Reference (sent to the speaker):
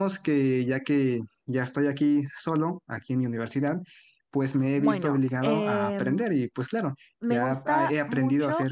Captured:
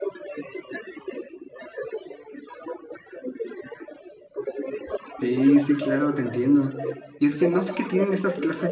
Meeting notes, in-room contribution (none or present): present